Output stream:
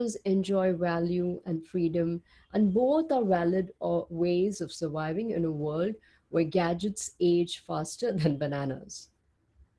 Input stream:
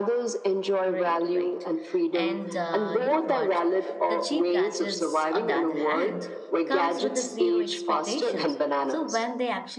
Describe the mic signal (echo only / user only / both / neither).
both